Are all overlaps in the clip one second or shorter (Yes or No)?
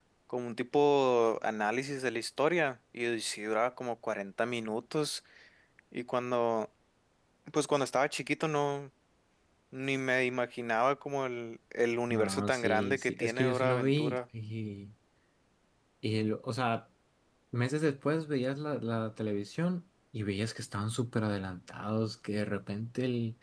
No